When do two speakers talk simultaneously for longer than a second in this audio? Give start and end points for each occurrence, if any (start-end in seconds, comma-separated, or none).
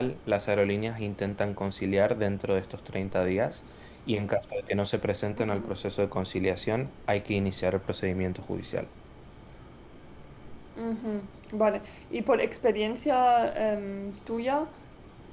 none